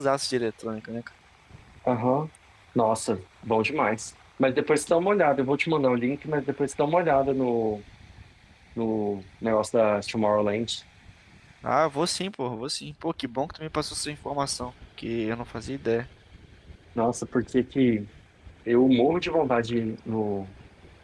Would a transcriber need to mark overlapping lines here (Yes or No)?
No